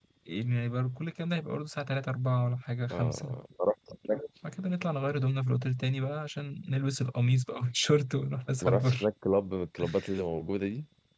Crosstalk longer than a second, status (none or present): none